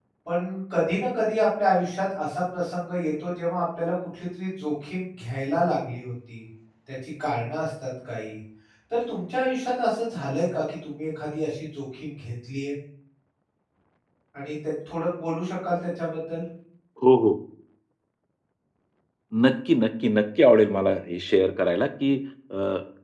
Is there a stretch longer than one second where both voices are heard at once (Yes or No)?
No